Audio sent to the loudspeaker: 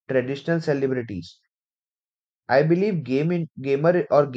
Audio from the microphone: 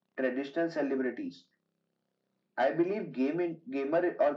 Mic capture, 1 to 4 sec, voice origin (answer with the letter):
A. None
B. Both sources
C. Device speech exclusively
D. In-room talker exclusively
C